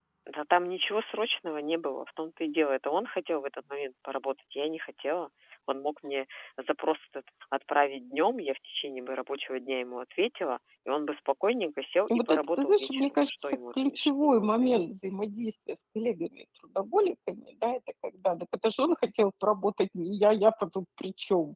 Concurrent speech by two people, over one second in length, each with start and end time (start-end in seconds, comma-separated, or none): 12.1-14.9